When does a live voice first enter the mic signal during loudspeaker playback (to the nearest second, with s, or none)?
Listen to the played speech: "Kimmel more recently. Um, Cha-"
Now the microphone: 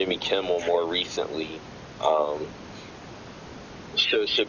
none